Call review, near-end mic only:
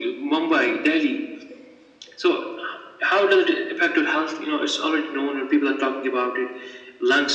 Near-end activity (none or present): none